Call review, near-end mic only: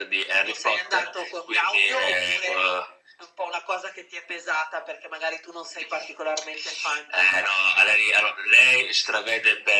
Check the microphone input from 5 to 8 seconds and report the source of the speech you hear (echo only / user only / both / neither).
echo only